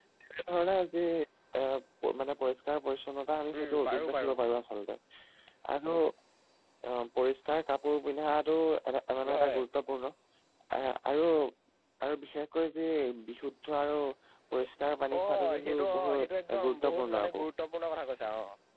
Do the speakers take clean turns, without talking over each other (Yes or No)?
No